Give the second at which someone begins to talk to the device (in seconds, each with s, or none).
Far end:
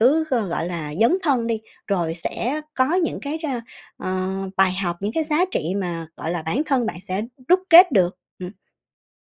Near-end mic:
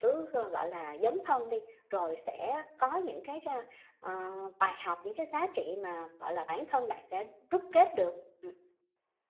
none